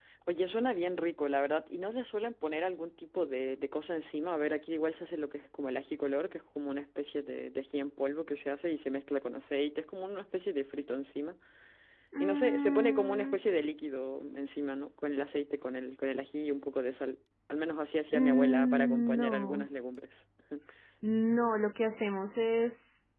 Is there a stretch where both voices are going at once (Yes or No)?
Yes